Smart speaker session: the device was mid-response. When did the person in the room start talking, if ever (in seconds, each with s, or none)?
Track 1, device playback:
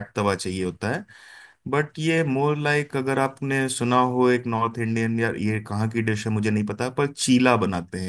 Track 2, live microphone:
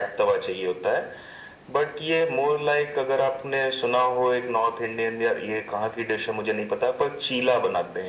none